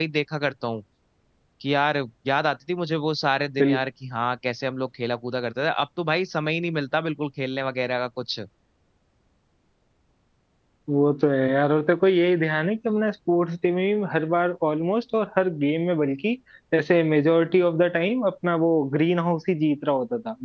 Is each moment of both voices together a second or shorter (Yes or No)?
Yes